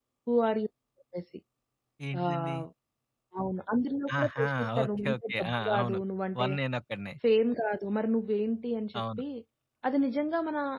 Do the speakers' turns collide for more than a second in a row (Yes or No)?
Yes